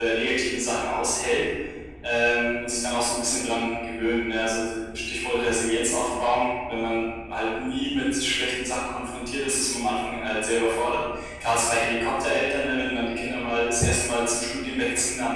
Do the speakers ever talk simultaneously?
No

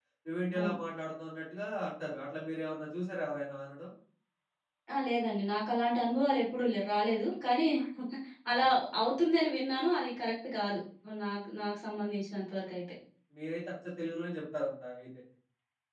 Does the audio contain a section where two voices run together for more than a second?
No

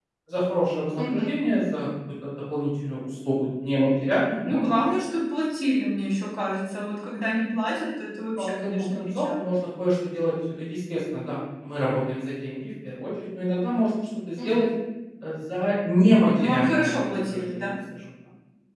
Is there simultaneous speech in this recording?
Yes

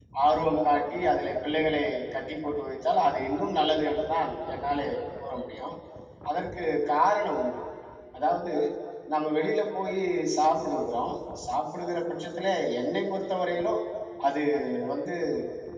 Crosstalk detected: No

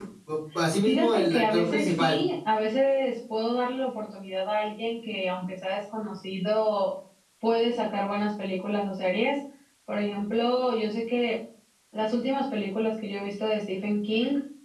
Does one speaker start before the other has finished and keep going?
Yes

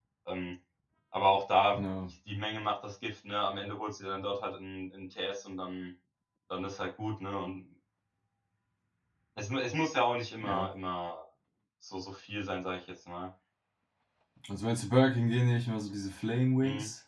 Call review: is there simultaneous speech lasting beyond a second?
No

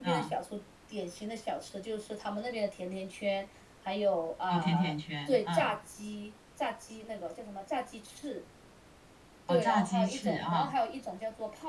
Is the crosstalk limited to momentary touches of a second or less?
No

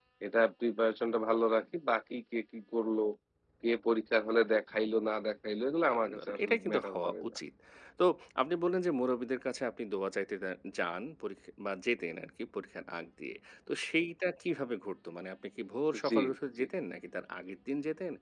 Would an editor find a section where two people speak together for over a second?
Yes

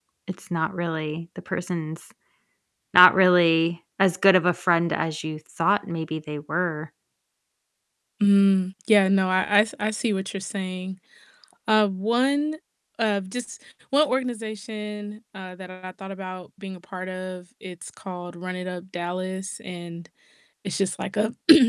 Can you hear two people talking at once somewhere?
No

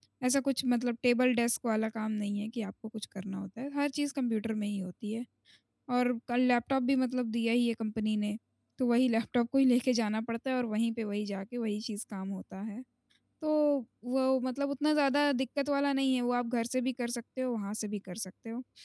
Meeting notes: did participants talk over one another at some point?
No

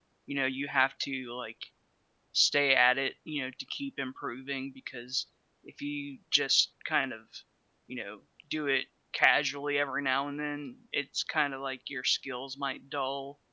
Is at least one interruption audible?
No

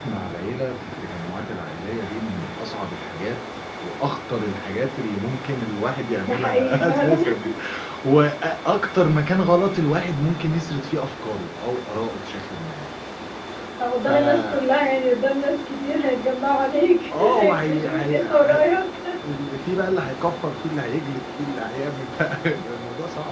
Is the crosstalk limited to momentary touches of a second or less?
No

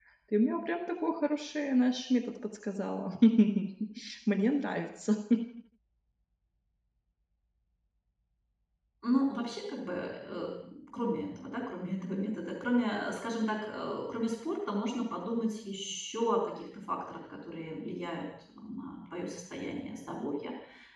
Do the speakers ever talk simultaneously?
No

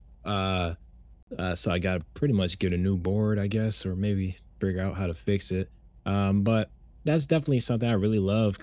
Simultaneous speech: No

